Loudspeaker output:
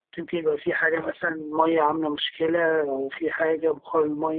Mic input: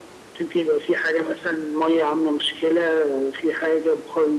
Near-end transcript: none

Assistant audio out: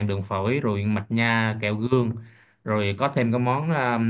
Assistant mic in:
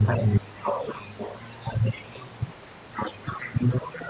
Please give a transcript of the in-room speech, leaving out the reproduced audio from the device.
none

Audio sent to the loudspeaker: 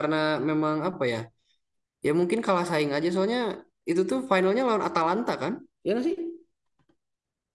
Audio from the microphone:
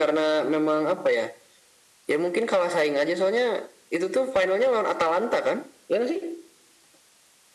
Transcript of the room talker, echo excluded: none

